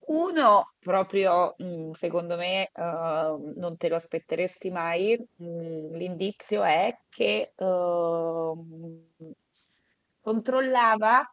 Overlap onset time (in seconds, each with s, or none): none